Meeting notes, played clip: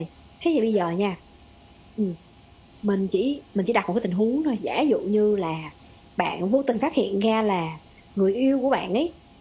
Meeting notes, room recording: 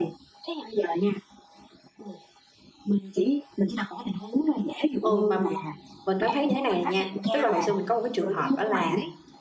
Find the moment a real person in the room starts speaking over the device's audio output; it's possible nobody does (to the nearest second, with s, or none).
5 s